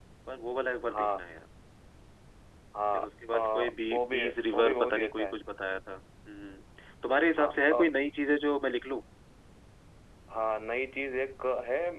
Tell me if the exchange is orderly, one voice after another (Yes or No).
No